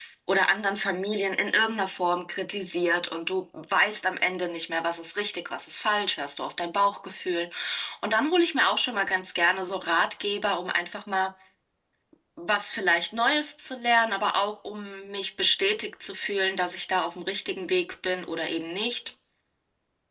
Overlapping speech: No

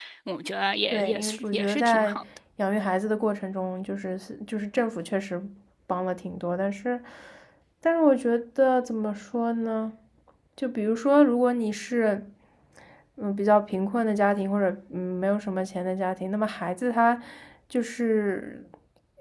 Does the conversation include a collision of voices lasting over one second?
Yes, from 0.9 s

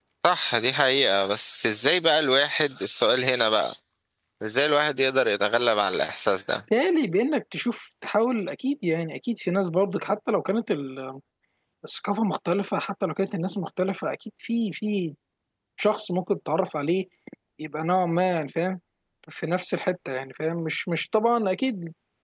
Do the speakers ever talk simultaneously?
No

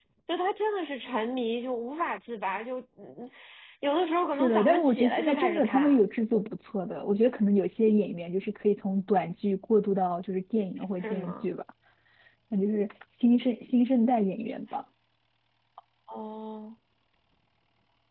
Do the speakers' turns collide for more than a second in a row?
Yes, from 4.3 s

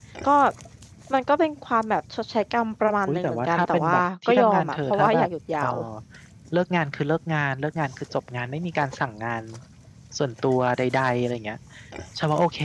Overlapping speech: Yes, from 3.1 s

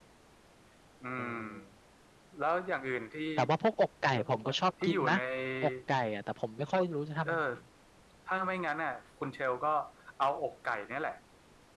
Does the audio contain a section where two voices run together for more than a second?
No

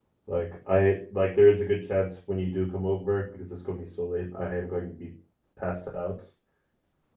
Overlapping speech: No

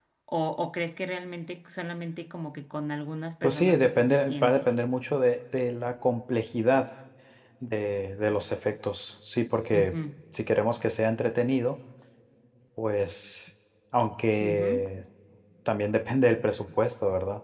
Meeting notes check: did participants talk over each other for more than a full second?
Yes, from 3.4 s

